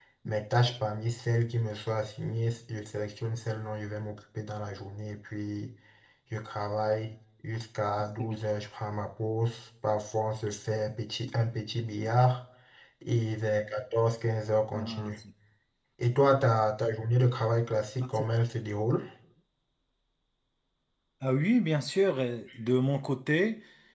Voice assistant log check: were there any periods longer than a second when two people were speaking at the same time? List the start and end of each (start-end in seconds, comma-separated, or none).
none